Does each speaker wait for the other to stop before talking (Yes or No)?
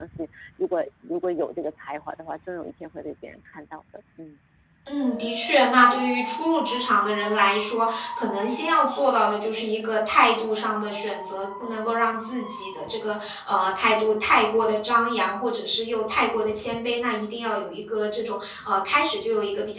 Yes